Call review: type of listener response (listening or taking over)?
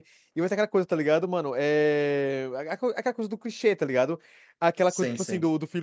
listening